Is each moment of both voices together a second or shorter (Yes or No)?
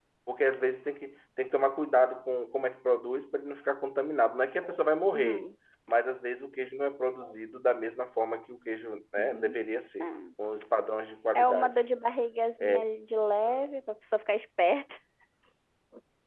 Yes